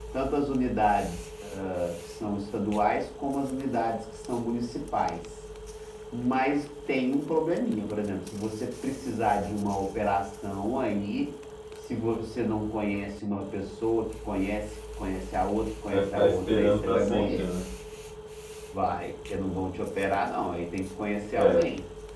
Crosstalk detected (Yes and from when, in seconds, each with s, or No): Yes, from 15.9 s